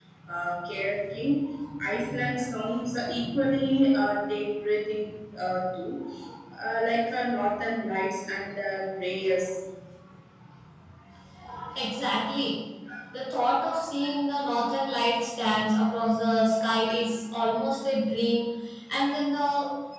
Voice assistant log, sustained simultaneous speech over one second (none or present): none